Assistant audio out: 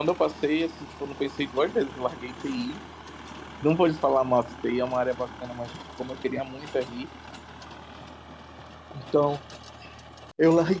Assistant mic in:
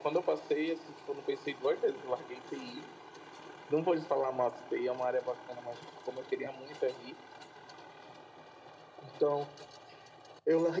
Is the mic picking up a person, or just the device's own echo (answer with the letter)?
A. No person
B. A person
A